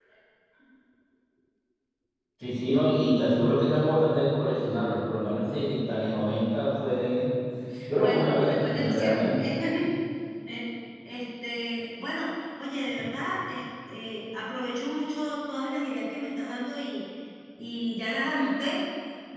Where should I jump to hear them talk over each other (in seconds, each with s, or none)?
8.0 s